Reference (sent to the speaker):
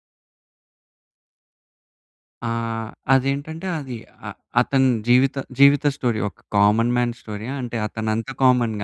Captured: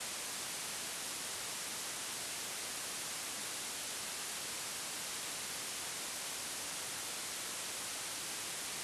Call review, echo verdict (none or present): none